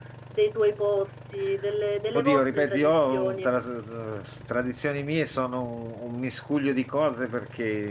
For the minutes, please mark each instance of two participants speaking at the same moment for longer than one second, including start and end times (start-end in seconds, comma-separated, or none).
2.1-3.5